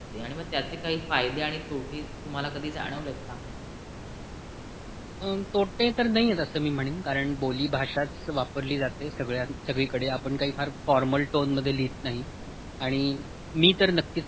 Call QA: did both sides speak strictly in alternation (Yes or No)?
Yes